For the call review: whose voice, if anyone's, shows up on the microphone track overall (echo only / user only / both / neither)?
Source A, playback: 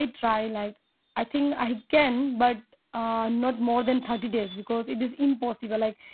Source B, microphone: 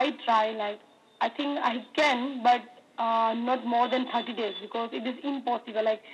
echo only